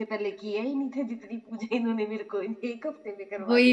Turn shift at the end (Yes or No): Yes